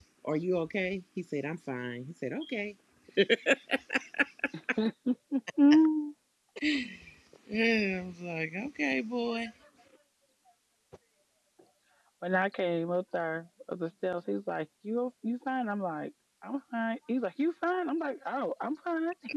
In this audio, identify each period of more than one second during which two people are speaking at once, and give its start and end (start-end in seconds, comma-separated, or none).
none